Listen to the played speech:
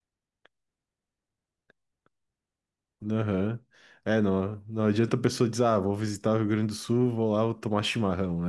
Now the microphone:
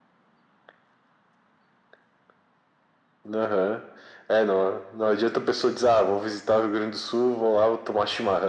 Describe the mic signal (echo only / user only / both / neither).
echo only